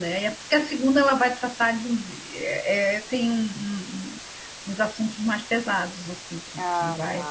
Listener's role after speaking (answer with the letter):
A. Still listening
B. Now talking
A